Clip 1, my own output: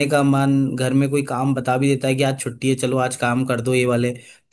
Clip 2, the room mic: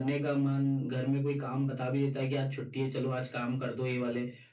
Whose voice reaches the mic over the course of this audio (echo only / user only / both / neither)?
echo only